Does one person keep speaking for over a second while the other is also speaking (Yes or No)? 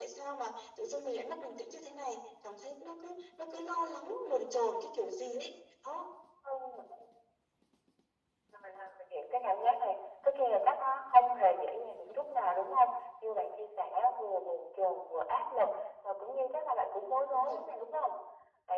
No